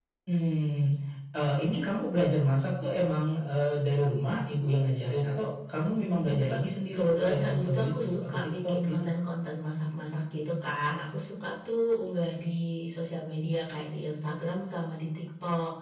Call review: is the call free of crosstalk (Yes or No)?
No